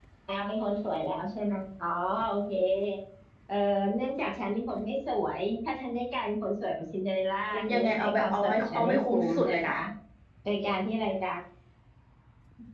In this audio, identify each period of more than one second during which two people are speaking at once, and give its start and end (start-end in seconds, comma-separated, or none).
7.5-9.7